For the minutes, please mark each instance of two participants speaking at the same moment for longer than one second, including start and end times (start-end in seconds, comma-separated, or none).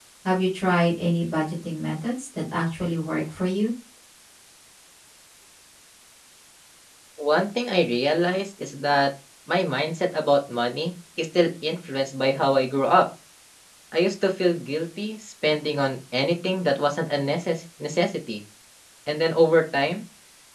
none